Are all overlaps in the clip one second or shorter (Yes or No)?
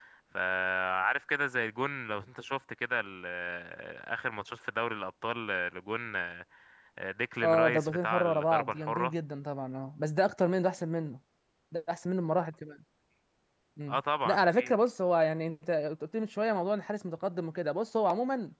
No